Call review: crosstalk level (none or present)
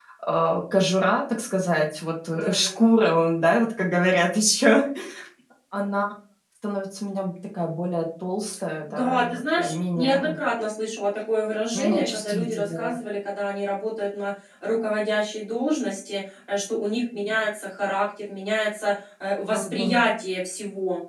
present